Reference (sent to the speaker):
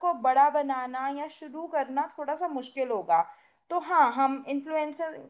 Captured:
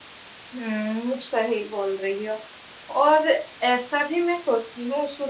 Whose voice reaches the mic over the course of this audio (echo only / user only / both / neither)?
user only